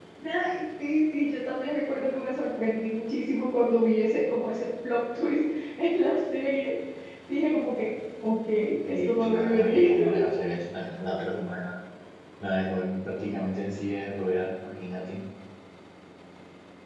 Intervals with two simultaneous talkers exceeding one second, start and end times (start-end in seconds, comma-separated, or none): 8.8-10.2